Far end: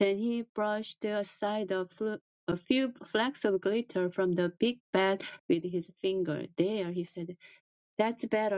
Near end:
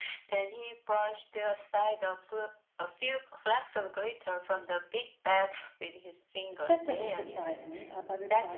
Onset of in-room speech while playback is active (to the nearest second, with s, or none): 7 s